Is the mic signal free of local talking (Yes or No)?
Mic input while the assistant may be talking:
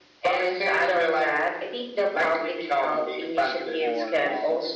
No